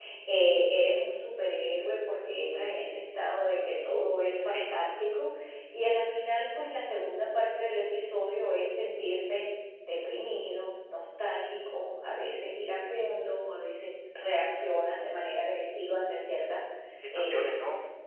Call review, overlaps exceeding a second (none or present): none